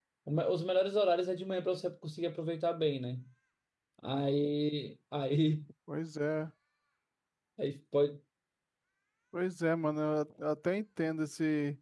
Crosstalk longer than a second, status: none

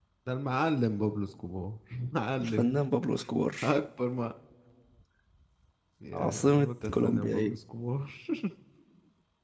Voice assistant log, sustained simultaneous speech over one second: present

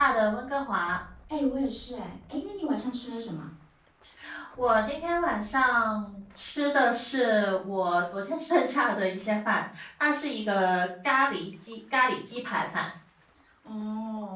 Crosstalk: none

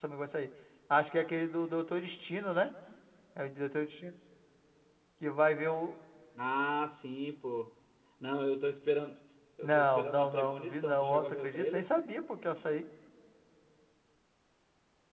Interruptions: present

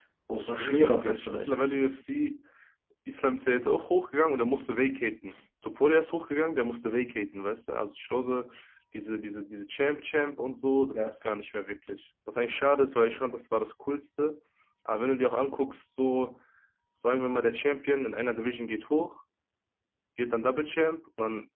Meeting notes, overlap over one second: present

